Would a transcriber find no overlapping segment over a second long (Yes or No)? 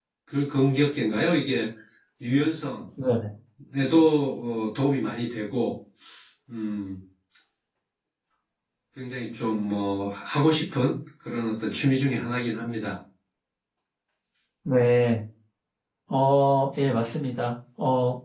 Yes